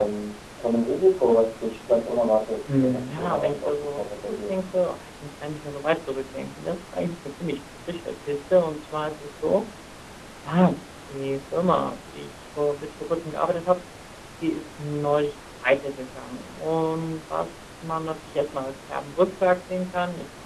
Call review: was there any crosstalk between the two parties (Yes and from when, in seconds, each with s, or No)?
Yes, from 2.7 s